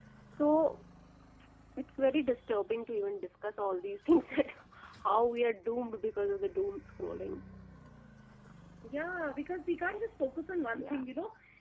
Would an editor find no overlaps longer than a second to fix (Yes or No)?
Yes